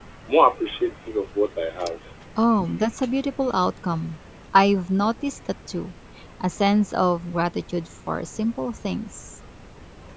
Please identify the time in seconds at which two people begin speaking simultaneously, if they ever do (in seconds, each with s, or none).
none